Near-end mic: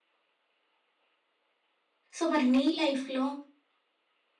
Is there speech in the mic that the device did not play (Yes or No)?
Yes